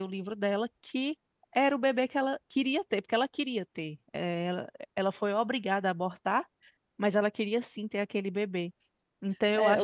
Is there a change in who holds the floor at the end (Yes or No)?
Yes